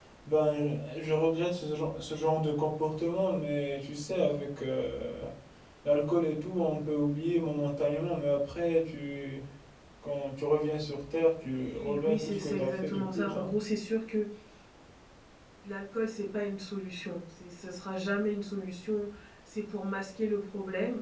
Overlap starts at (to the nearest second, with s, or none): 12 s